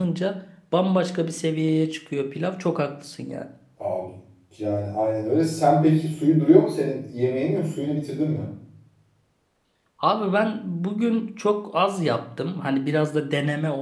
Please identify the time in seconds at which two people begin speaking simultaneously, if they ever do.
none

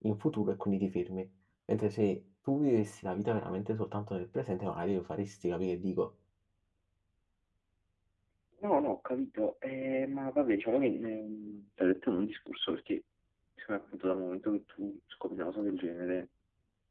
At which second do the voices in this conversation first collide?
none

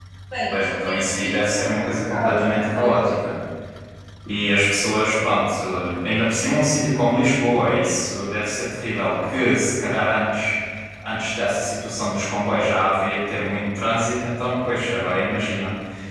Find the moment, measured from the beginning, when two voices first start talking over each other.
0.5 s

